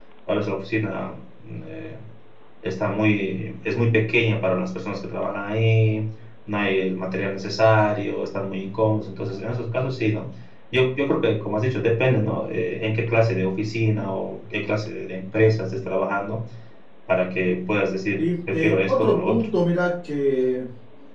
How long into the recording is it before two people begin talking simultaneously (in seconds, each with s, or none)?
18.2 s